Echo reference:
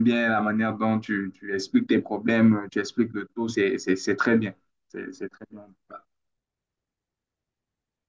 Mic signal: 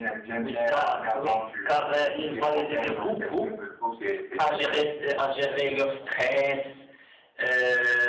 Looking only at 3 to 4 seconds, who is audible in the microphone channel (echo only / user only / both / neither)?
both